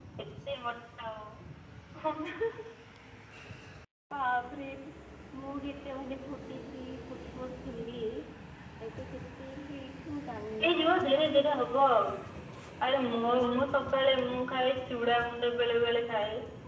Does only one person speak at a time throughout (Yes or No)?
Yes